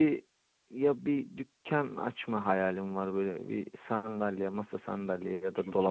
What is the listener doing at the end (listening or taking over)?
listening